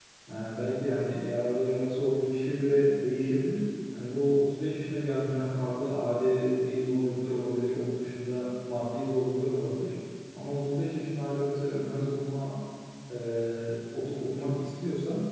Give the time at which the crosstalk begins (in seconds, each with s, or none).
none